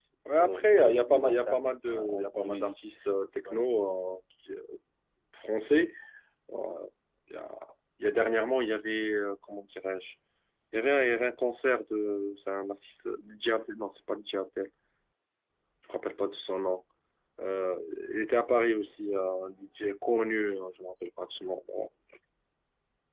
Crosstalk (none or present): present